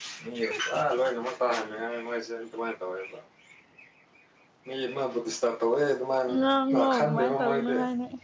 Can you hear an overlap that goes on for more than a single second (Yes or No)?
Yes